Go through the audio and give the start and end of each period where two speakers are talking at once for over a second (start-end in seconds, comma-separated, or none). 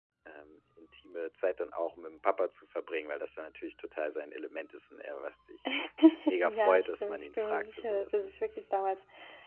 6.4-8.3